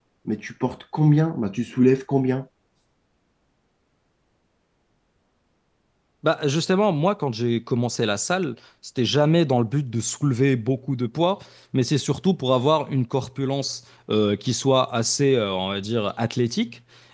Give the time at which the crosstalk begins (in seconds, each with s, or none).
none